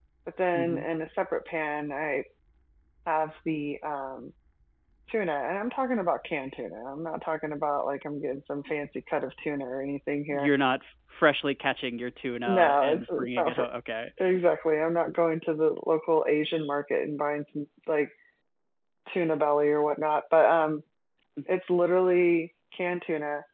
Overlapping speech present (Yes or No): Yes